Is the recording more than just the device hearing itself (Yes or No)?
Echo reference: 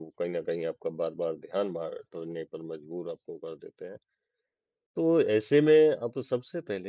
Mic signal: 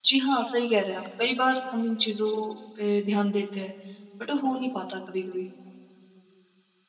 Yes